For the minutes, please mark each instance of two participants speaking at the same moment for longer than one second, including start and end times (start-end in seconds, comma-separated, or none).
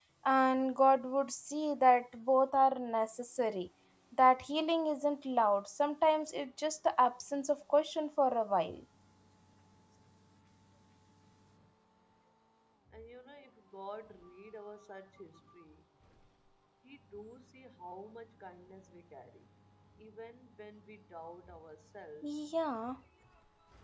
none